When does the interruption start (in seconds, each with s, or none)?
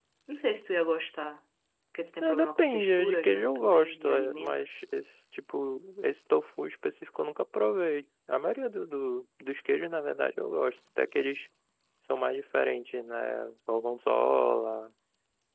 2.2 s